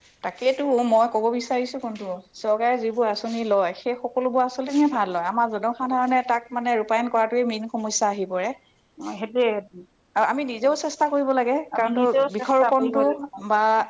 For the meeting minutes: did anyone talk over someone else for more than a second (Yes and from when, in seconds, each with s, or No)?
Yes, from 11.7 s